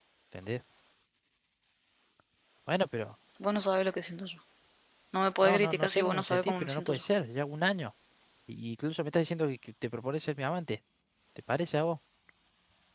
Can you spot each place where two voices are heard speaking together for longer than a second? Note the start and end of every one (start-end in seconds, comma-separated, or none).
5.4-7.0